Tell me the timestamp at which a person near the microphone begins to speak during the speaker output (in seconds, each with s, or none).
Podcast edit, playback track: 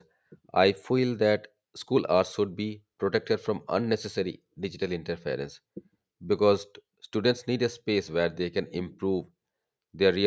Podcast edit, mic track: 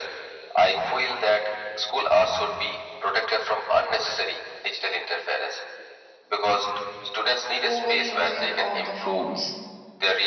7.6 s